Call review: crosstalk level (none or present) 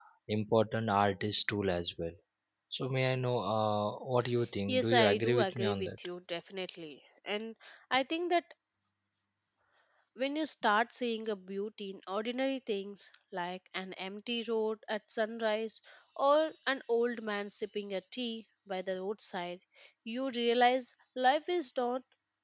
present